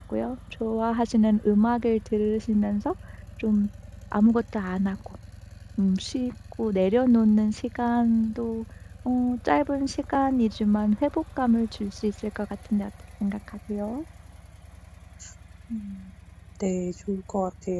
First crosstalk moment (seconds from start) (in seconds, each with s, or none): none